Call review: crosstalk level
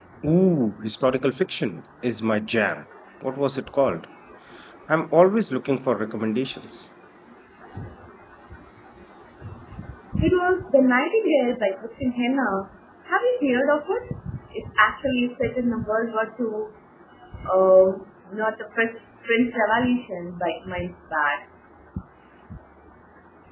none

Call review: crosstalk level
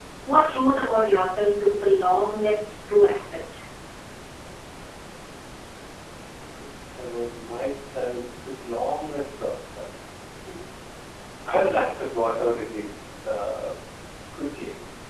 none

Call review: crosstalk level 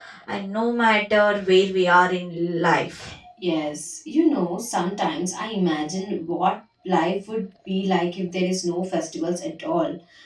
none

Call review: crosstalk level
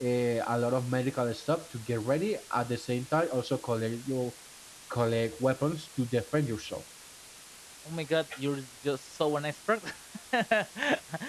none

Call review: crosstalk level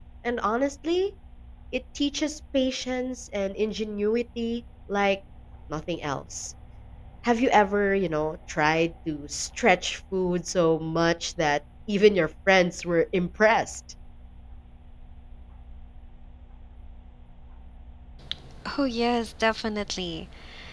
none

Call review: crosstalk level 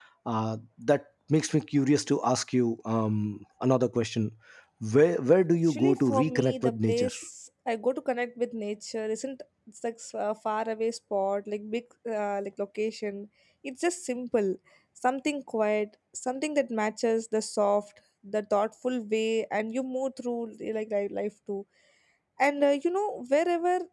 present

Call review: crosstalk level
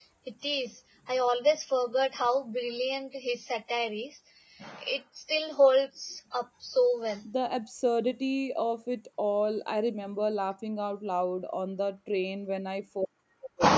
none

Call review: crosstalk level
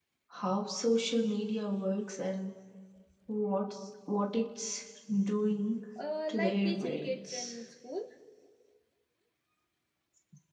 present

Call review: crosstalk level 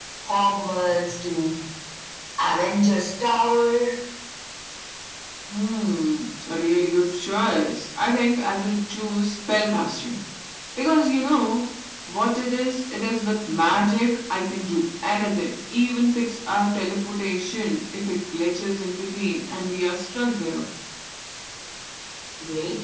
none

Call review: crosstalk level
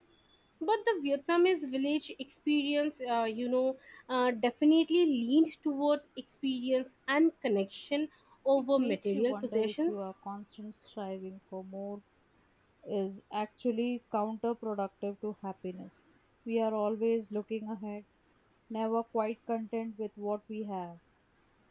present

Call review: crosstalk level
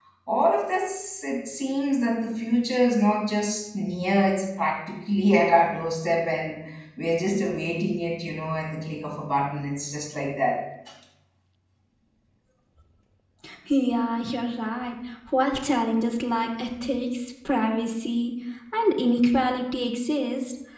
none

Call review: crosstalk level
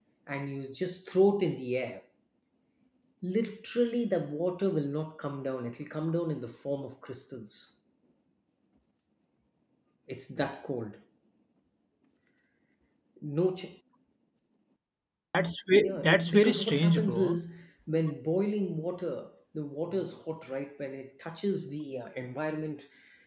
present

